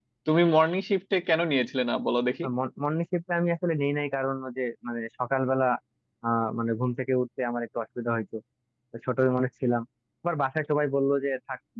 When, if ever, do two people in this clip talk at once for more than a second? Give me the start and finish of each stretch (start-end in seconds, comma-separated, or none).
none